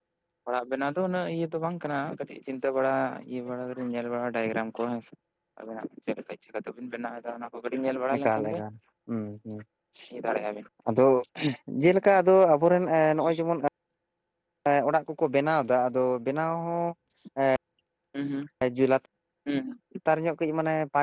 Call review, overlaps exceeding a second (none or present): none